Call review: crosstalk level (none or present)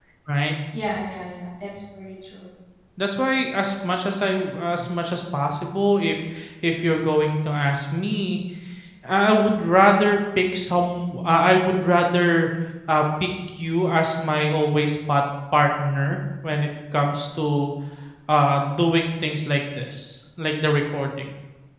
none